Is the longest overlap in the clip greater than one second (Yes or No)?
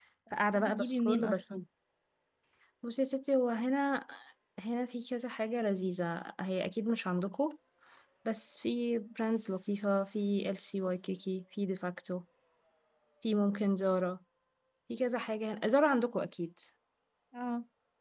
Yes